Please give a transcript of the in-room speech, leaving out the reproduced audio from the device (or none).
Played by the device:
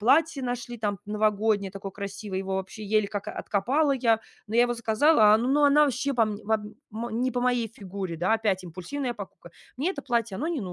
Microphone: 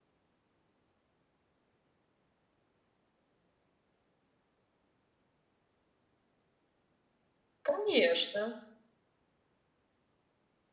Конечно.